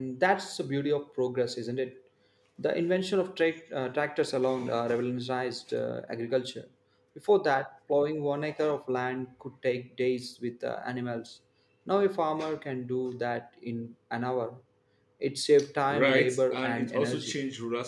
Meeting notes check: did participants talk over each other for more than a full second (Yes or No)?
Yes